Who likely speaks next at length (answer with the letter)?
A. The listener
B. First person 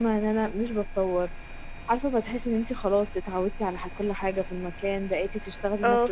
B